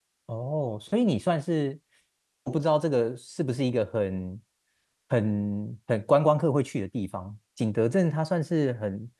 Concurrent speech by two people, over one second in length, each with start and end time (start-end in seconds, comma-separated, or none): none